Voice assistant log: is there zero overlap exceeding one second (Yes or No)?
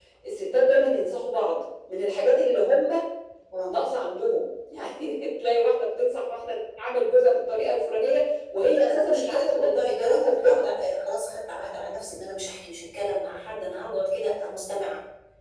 No